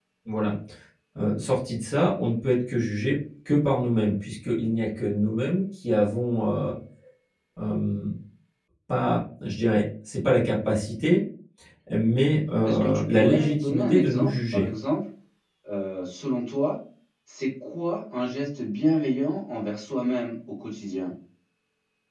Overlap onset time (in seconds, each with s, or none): 12.6 s